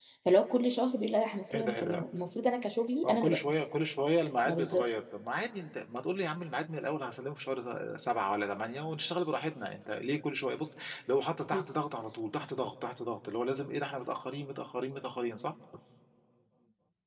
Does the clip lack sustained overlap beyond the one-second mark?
Yes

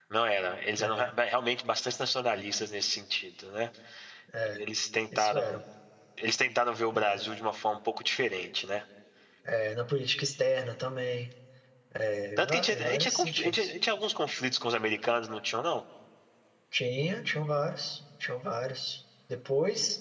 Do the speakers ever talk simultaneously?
Yes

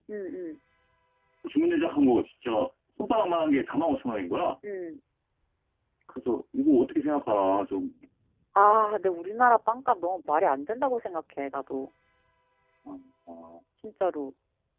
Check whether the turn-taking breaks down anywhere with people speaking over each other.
No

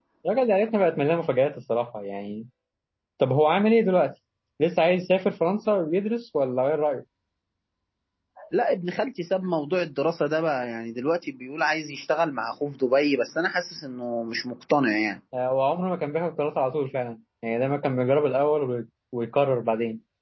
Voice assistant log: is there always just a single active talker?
Yes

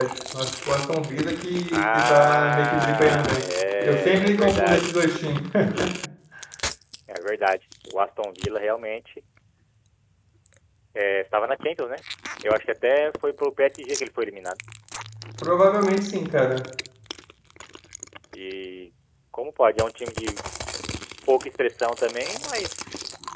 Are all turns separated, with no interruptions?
No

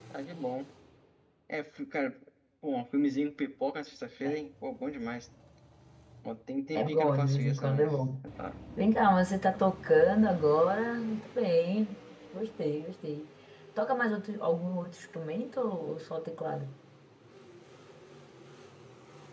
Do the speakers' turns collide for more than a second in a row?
Yes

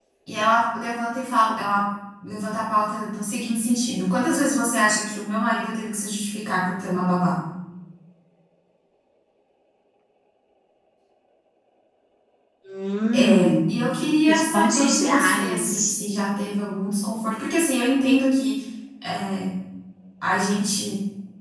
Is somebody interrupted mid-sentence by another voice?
Yes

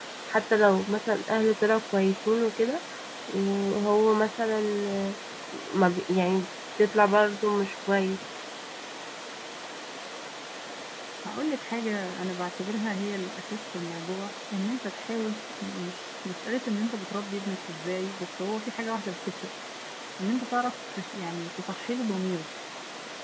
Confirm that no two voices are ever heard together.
Yes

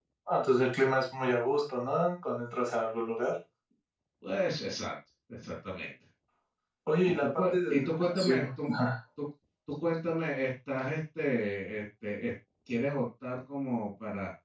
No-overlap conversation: No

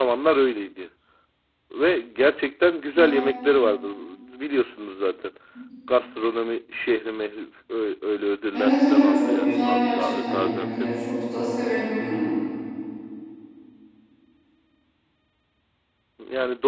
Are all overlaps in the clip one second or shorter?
No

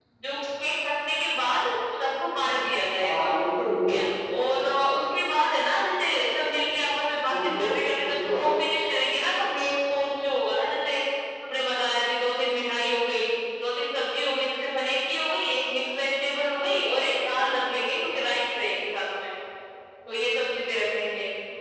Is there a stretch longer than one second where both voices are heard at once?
Yes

